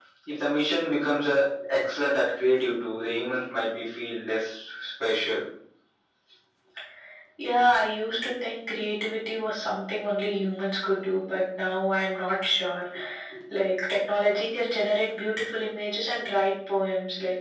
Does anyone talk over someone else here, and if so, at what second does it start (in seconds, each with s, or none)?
none